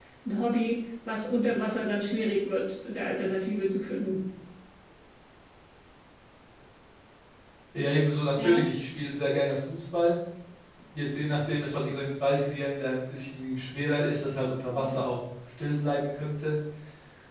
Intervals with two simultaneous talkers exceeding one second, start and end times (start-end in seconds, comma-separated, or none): none